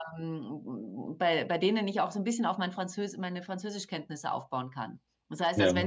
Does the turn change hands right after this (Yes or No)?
No